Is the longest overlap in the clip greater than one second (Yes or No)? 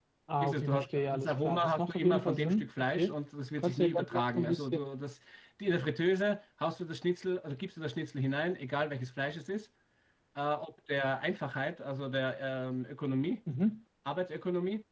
Yes